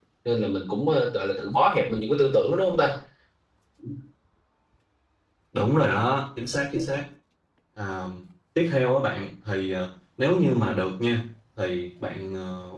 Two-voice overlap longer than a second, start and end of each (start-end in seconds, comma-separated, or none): none